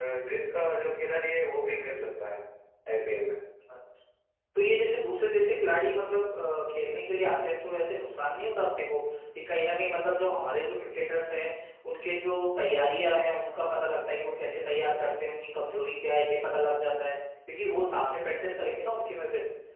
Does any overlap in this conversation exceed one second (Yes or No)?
No